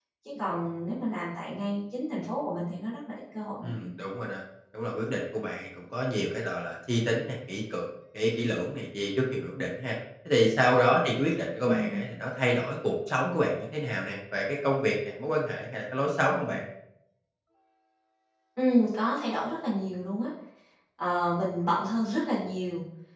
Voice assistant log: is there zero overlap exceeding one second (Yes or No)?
Yes